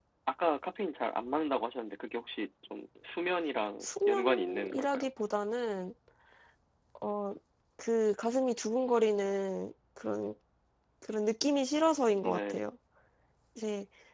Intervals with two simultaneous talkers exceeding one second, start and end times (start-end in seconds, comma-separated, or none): 3.8-5.1